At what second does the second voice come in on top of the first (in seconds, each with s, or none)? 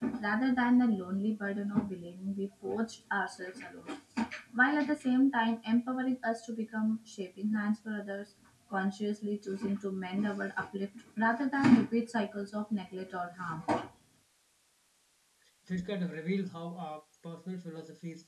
none